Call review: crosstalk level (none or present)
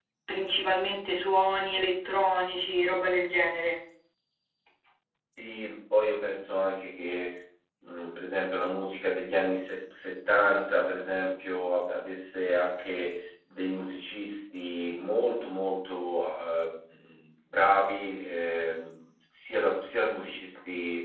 none